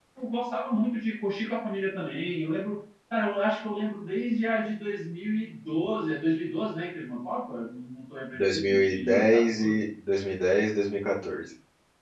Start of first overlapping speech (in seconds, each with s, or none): 8.3 s